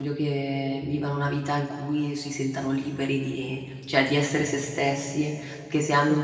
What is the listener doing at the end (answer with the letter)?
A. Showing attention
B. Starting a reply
A